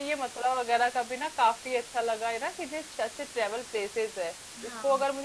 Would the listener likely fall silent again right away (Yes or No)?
Yes